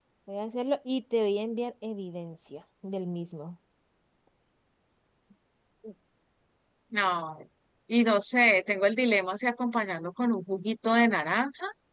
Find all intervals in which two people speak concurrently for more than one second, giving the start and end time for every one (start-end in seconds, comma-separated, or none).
none